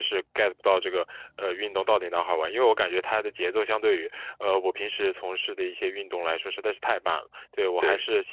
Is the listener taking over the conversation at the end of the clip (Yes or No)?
No